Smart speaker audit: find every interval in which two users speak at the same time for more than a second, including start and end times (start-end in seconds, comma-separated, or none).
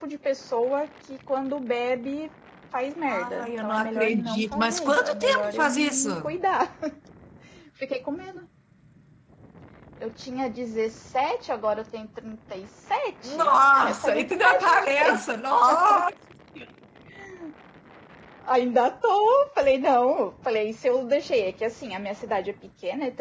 3.1-6.1, 13.2-15.2